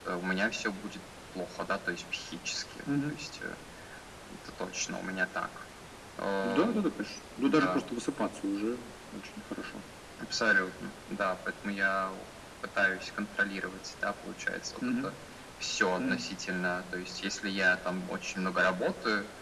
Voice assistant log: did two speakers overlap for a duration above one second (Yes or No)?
No